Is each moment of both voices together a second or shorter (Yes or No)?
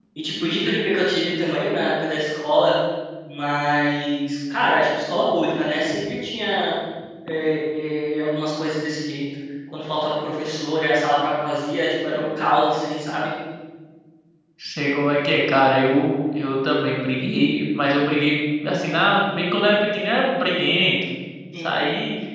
Yes